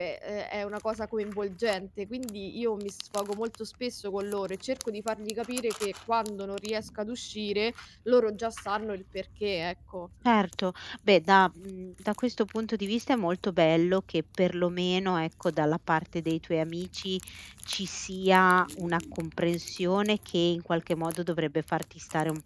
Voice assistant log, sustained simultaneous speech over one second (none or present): none